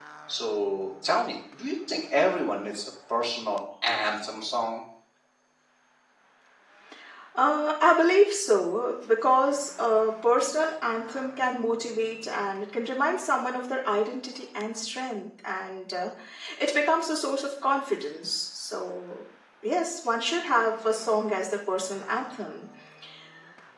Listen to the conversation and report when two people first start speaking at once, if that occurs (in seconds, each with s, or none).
none